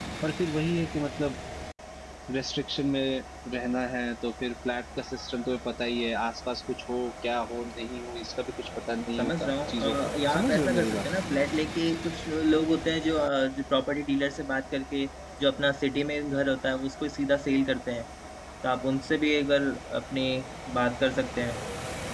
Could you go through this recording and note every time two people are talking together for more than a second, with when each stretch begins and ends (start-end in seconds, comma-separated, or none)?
9.2-11.0